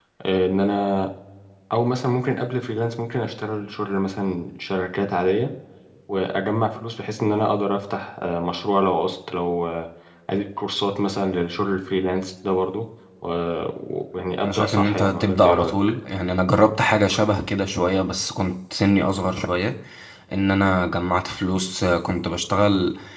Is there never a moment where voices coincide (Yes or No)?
No